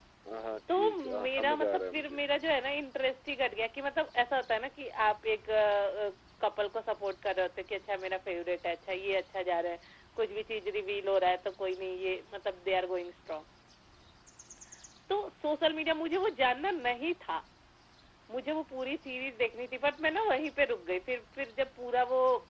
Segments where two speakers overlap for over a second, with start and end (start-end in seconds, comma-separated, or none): 0.8-2.2